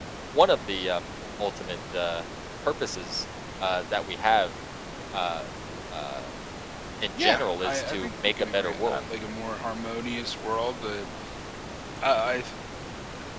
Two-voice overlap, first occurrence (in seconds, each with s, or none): 7.2 s